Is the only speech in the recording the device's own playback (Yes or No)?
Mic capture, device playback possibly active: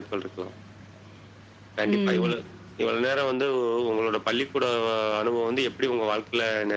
No